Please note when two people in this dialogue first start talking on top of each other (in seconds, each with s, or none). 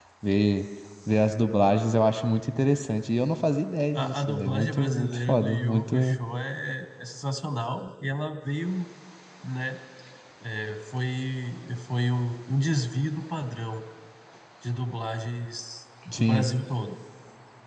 3.9 s